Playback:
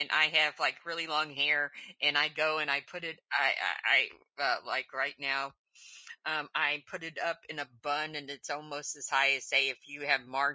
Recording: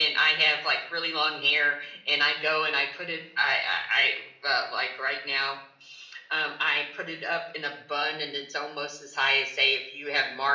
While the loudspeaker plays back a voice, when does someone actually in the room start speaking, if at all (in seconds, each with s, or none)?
none